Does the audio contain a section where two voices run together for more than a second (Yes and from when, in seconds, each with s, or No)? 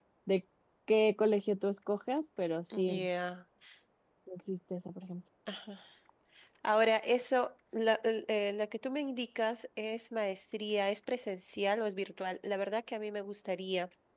No